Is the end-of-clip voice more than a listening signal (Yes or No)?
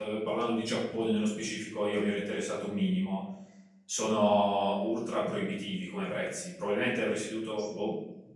No